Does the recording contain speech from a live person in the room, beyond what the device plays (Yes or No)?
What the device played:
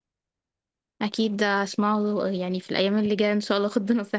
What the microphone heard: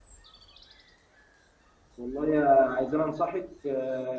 Yes